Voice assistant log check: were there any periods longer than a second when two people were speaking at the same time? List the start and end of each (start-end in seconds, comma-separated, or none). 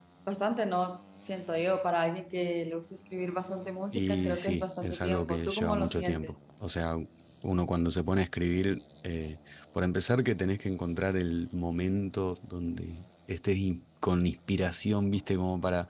3.9-6.3